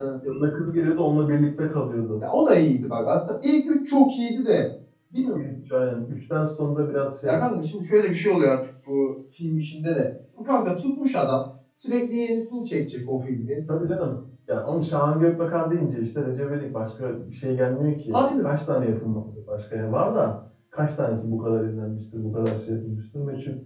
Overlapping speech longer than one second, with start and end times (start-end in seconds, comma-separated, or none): none